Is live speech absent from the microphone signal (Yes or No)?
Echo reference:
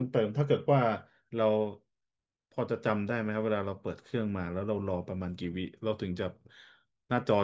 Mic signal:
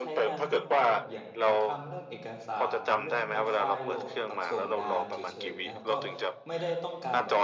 No